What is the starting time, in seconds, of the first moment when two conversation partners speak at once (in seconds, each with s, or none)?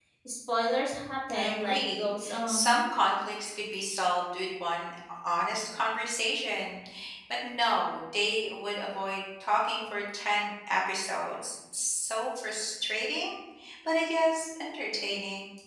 1.3 s